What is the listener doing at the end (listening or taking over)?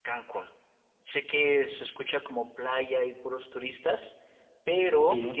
listening